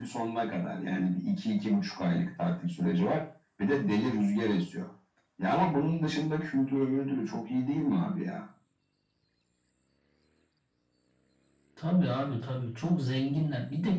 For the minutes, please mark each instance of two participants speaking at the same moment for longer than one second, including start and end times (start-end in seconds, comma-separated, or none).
none